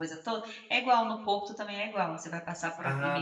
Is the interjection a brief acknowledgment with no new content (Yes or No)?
No